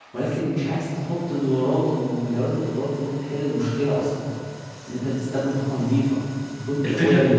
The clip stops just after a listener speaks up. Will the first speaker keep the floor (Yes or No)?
No